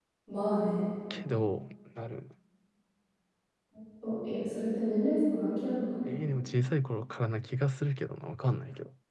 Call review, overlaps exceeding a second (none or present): none